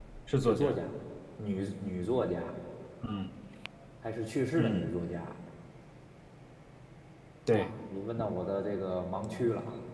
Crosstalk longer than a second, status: none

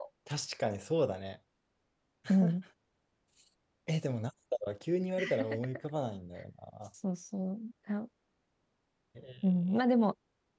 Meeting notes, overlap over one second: none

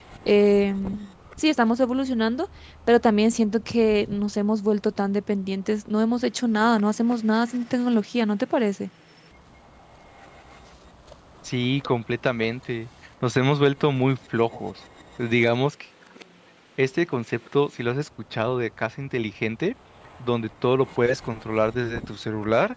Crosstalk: none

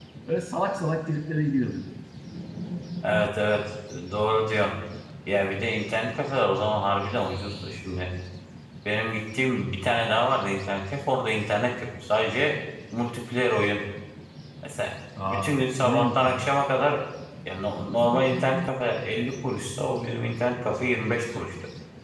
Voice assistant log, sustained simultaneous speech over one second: present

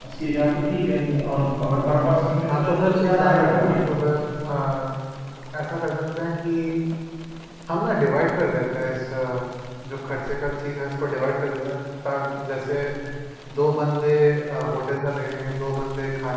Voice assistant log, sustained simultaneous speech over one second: present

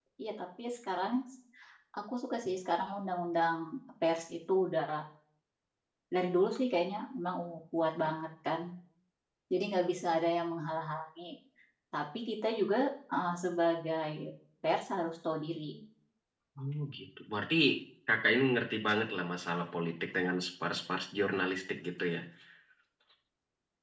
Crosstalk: none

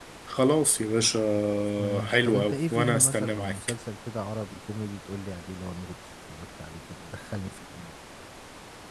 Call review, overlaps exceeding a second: present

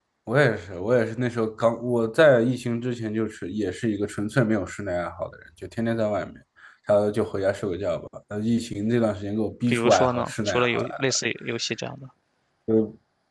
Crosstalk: present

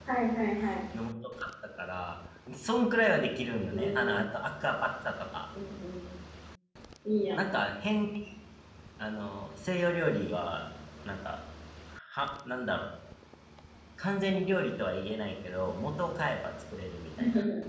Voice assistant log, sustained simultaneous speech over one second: none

